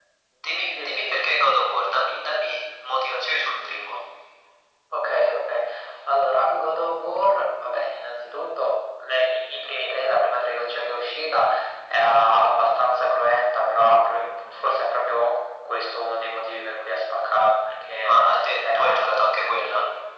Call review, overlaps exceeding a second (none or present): none